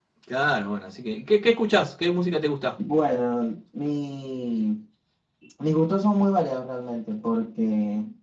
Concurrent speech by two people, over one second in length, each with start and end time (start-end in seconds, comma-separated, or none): none